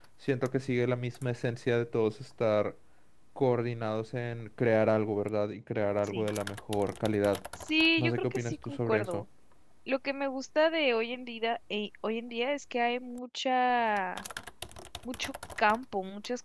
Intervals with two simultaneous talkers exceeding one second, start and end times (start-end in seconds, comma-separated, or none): 8.0-9.2